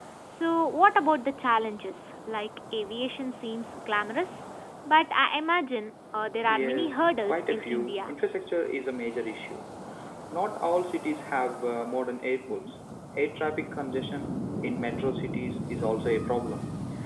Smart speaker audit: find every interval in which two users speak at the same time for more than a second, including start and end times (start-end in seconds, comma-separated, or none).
6.5-8.1